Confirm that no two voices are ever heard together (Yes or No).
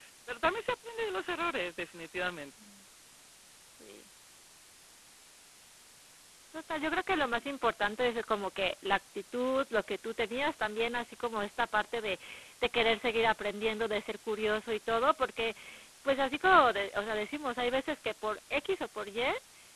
Yes